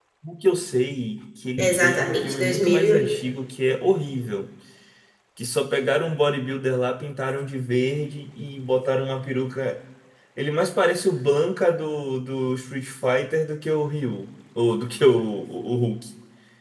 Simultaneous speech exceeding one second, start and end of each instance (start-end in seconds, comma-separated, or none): 1.6-3.0